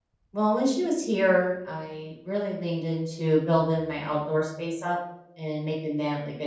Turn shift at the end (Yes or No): No